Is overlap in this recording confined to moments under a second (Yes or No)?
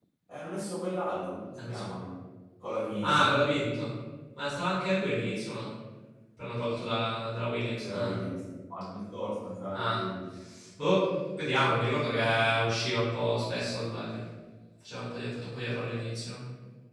Yes